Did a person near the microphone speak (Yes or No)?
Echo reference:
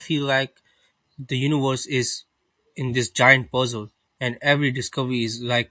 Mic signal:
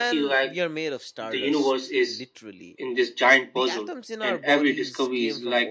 Yes